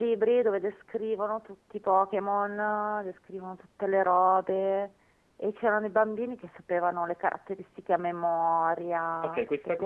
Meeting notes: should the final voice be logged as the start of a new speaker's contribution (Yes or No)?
Yes